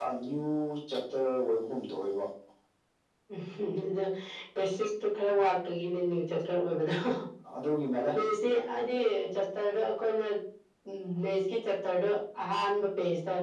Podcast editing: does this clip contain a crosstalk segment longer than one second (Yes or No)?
No